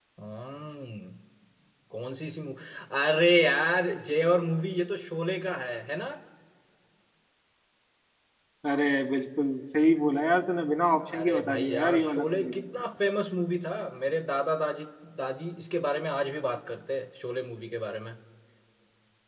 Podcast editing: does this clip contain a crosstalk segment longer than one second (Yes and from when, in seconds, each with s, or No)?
Yes, from 11.1 s